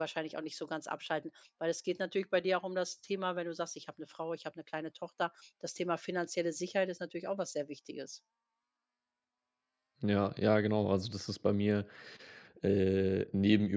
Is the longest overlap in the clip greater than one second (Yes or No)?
No